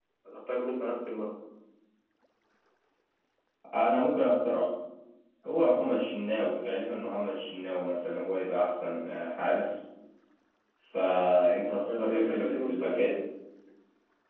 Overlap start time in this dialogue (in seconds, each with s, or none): 11.9 s